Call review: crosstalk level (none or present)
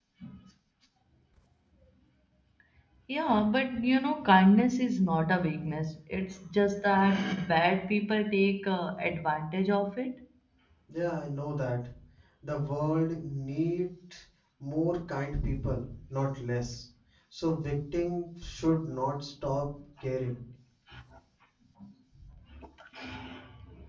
none